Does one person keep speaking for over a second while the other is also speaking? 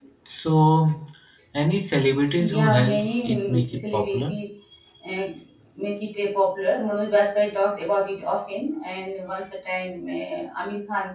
Yes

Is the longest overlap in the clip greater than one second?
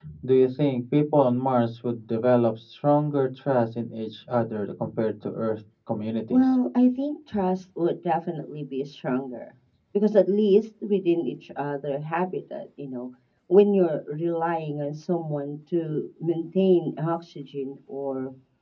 No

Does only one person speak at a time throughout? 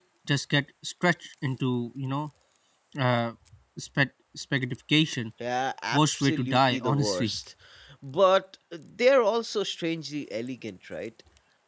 No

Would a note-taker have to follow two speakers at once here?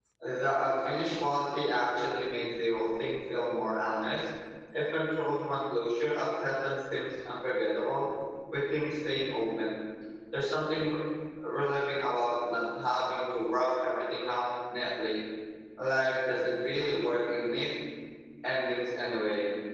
No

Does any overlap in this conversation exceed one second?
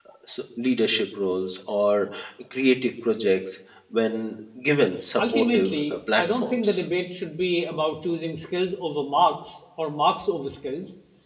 Yes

